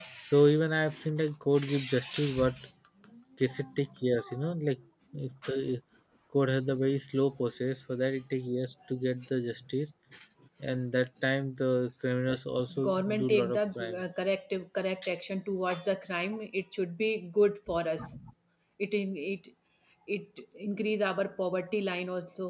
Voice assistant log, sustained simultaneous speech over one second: present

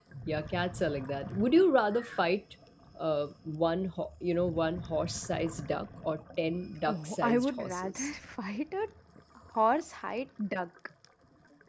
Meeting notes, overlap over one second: present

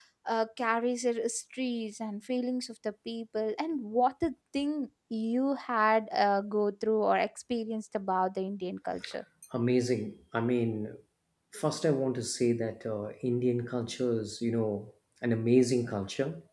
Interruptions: none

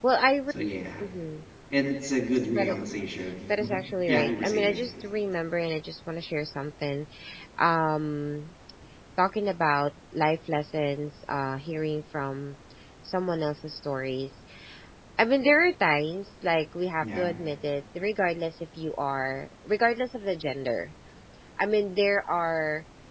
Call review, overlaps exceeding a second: present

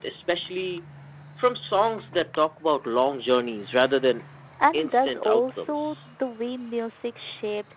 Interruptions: present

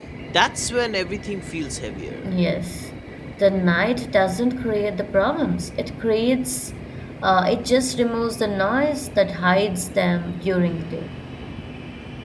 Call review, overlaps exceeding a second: none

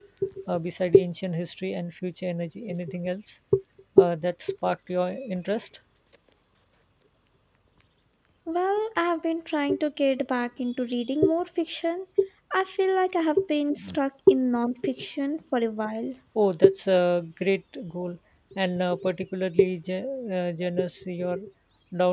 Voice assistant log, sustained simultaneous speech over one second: none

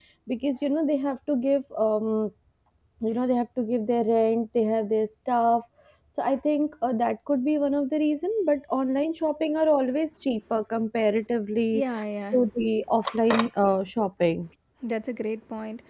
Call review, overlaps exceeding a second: none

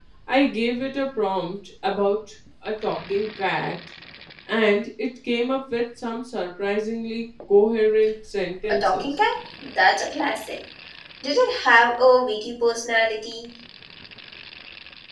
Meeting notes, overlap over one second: none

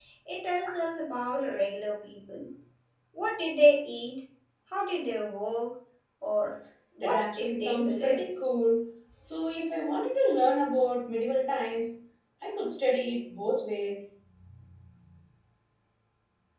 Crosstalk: present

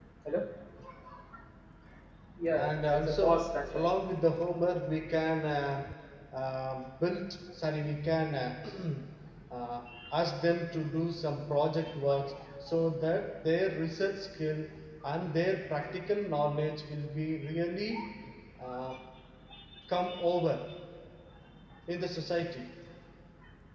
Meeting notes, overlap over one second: present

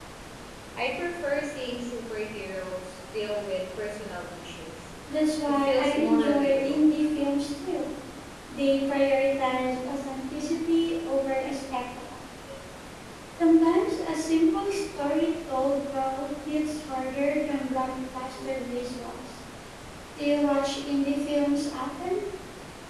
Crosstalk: present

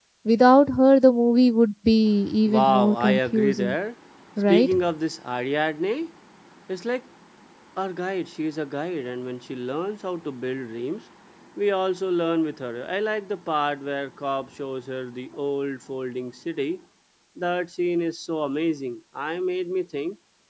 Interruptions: present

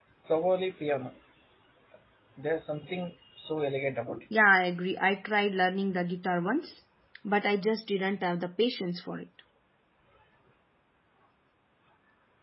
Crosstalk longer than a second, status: none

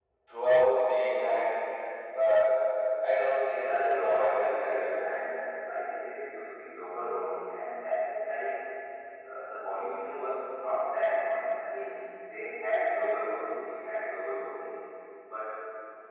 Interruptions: present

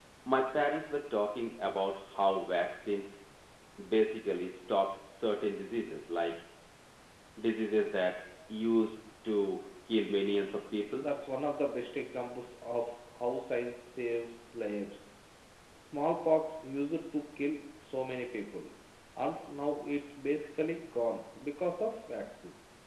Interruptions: none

